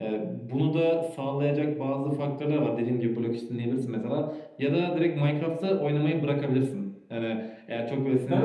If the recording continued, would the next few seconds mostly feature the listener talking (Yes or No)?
Yes